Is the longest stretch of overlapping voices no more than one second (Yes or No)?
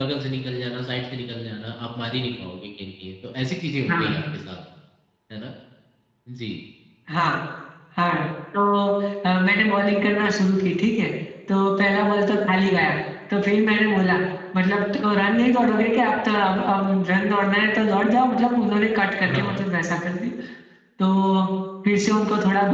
Yes